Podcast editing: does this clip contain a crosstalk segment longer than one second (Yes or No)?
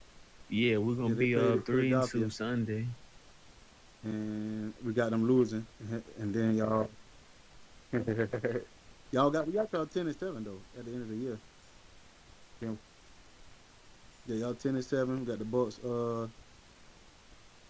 Yes